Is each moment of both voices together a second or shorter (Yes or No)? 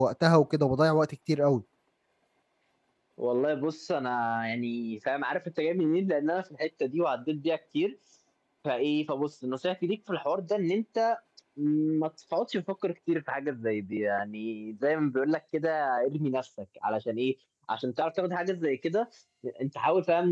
Yes